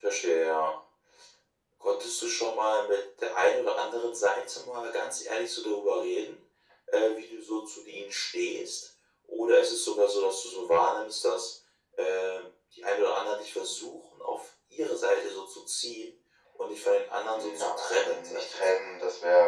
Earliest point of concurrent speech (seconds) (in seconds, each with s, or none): 17.3 s